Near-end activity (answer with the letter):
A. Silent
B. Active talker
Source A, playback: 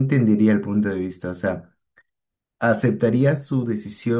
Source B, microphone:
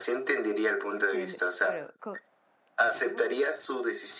B